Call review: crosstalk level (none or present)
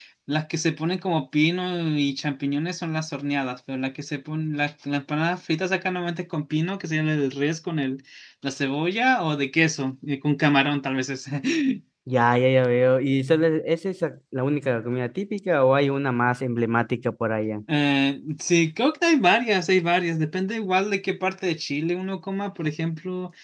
none